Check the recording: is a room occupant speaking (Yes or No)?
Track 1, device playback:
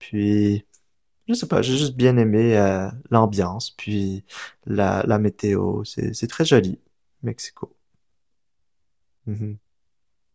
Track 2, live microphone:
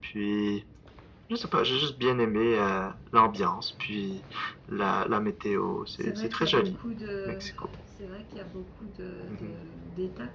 Yes